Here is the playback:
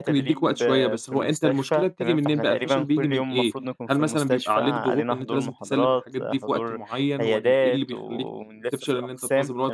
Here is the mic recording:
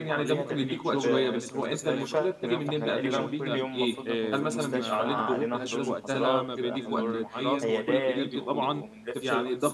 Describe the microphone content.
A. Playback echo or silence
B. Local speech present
B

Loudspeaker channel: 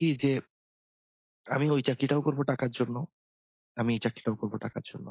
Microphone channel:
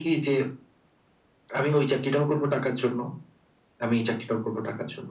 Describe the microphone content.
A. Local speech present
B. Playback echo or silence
B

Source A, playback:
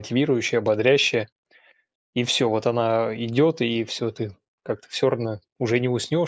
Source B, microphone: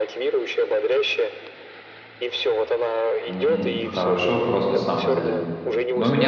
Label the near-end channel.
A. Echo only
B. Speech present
B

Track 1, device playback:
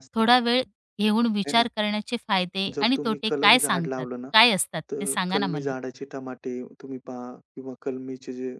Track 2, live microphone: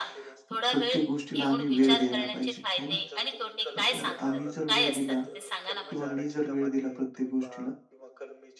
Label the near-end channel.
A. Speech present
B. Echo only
A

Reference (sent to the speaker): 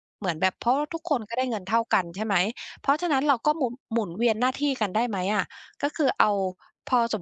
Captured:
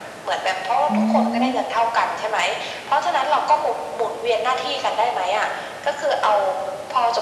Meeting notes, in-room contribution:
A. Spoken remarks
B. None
A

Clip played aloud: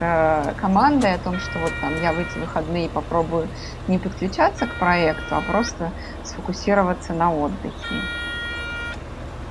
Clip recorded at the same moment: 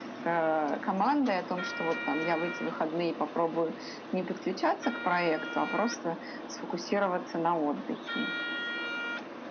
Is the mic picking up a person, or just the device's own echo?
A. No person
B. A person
A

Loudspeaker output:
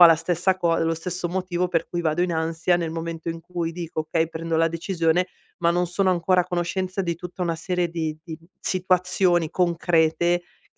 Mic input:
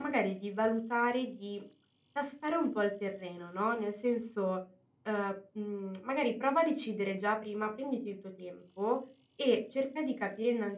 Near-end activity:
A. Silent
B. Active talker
B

